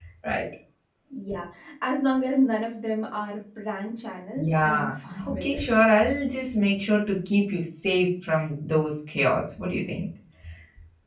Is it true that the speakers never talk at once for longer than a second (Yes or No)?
Yes